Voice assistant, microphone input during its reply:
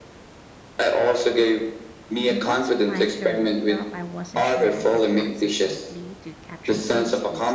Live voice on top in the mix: No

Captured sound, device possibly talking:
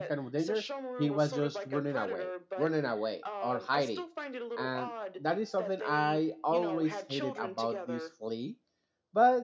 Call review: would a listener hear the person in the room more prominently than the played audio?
Yes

